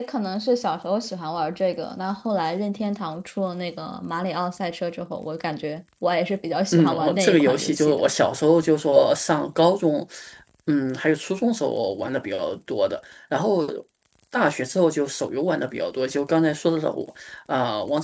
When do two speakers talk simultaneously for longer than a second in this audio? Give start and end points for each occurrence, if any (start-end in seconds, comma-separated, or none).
6.7-8.0